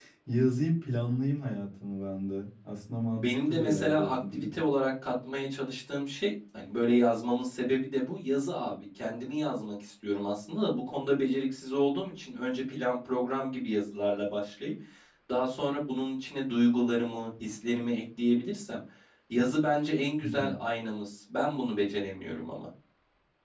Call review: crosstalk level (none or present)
present